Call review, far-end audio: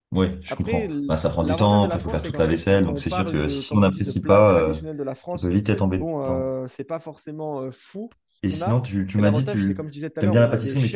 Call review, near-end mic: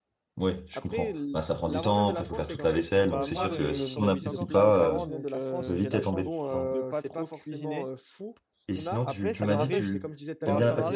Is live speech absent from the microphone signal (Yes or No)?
No